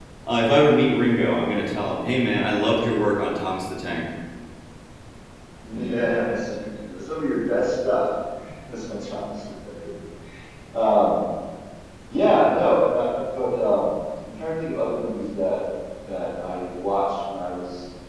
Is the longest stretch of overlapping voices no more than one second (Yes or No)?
Yes